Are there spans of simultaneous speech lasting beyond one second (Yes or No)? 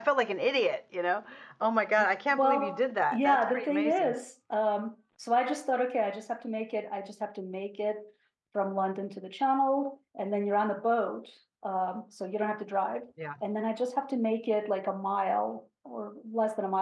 Yes